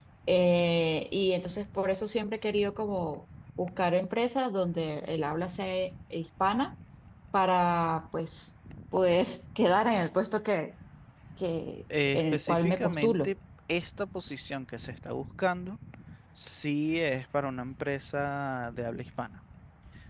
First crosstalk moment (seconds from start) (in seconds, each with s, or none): 12.1 s